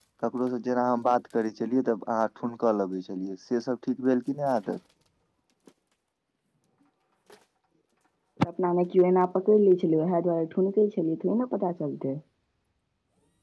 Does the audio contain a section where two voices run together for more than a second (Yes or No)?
No